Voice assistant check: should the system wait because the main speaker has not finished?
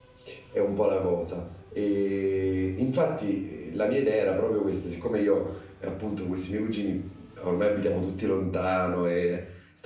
Yes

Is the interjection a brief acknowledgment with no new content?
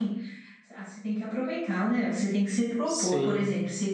Yes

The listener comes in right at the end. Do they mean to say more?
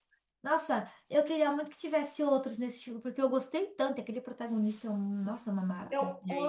Yes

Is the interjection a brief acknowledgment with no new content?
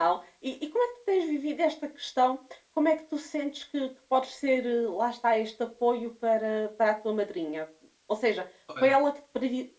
Yes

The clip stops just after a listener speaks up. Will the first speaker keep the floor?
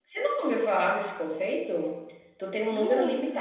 Yes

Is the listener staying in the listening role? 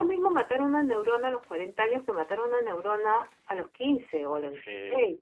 Yes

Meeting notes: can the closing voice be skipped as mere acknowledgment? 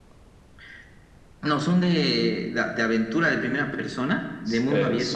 No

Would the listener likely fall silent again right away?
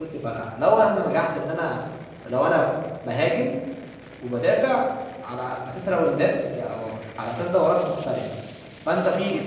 Yes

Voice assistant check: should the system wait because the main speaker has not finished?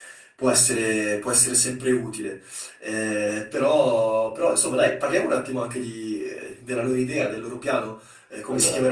Yes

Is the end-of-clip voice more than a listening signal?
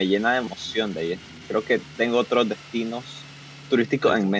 Yes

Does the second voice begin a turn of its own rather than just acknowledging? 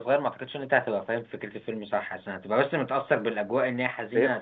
Yes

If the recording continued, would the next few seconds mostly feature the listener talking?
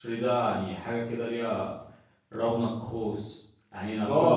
Yes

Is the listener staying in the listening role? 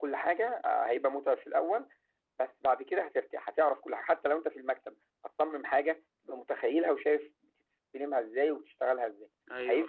No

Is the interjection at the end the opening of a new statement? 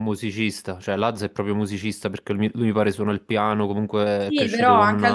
Yes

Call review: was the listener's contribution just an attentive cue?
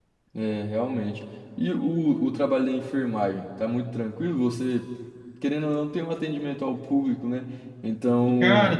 Yes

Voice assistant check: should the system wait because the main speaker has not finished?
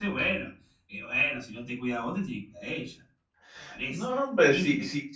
No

